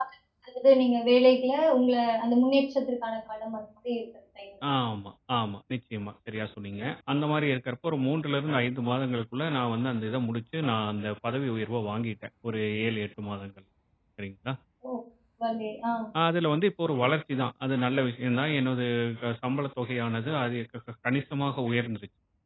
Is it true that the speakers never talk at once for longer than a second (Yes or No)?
Yes